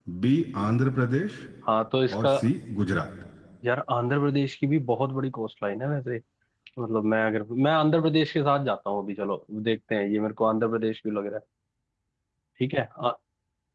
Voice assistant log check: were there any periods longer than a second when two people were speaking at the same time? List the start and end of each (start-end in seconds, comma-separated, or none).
none